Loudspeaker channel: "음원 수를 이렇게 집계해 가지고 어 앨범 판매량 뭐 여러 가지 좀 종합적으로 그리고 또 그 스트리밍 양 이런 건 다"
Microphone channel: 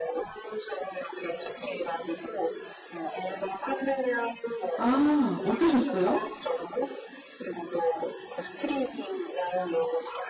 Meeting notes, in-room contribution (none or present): present